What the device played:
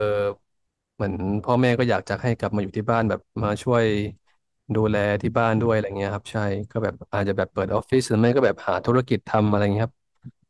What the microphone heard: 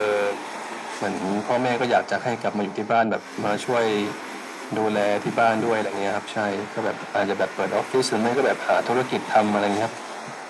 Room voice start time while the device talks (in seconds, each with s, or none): none